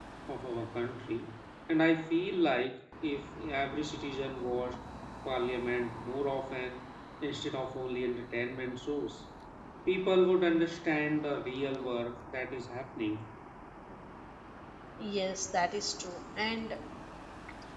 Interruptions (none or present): none